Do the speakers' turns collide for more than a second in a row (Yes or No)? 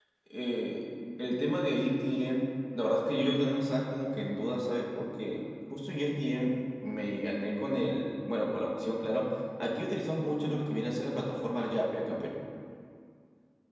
No